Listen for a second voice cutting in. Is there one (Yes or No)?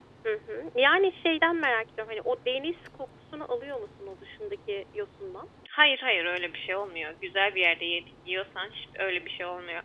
No